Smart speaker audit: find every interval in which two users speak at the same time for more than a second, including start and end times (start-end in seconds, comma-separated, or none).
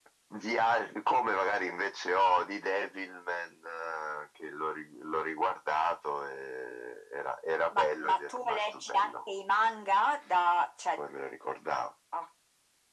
7.7-9.3